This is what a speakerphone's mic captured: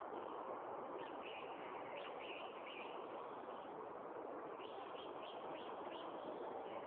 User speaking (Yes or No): No